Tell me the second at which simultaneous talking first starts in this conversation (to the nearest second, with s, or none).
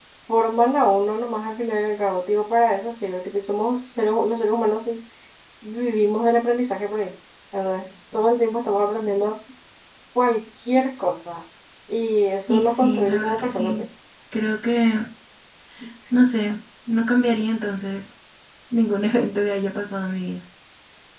12 s